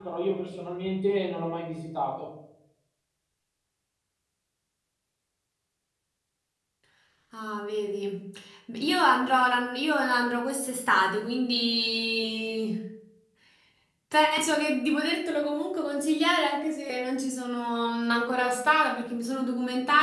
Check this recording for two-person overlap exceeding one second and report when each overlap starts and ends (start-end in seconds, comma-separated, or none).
none